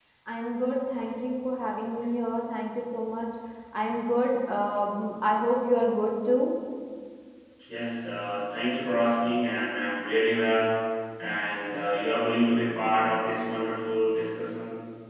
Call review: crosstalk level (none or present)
none